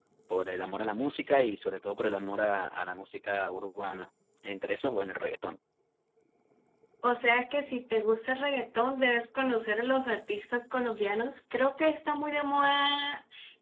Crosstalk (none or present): none